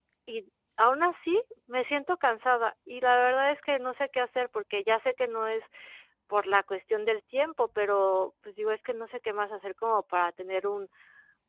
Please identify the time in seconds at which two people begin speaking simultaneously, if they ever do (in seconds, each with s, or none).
none